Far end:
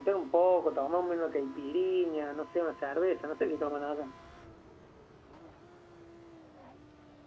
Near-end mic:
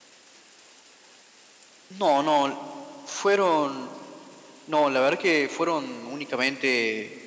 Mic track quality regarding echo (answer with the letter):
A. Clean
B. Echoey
A